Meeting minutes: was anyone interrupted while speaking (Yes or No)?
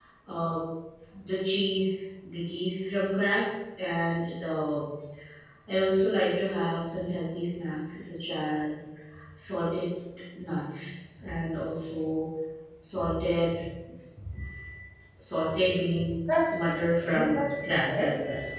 Yes